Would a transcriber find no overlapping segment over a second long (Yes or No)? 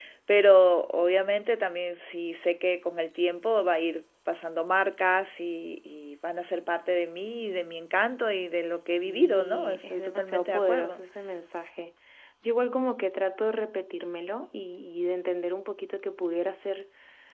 No